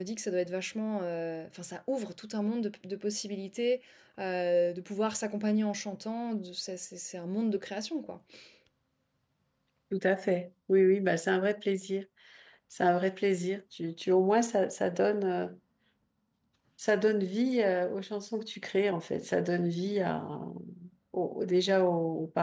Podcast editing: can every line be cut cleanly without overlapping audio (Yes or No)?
Yes